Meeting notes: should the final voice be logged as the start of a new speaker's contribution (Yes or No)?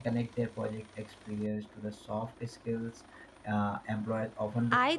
Yes